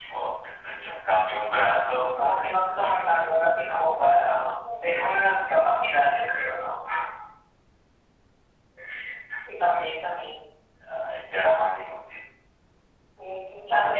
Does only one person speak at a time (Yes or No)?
No